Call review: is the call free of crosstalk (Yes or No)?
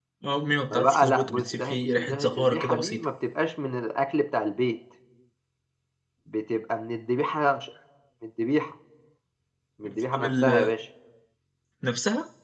No